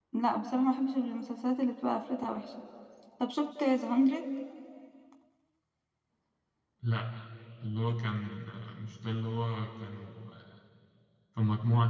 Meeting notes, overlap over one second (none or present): none